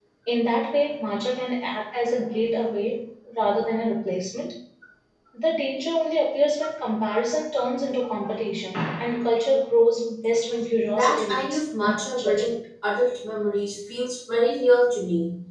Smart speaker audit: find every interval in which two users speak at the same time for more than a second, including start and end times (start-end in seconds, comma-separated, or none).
10.9-12.5